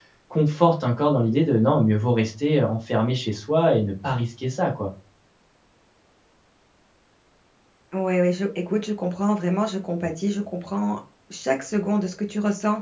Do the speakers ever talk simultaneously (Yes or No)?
No